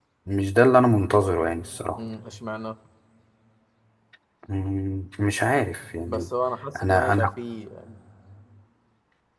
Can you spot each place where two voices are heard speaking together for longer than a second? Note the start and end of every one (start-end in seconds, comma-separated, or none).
none